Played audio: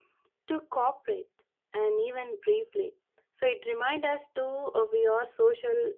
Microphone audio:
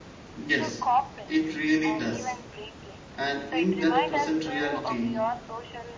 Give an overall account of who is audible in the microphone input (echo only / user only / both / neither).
both